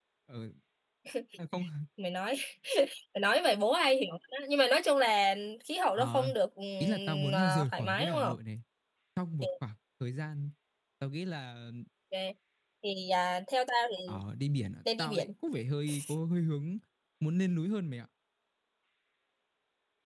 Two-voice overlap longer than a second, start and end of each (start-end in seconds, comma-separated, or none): 6.8-8.4